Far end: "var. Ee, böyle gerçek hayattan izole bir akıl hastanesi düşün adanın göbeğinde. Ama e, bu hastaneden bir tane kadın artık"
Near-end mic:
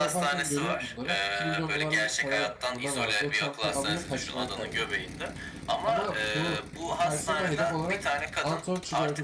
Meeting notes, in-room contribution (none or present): present